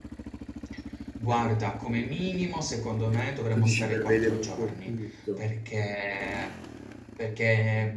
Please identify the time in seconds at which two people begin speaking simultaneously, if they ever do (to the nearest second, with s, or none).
4 s